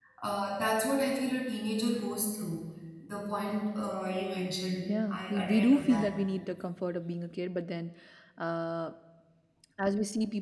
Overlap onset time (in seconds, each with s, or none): 4.8 s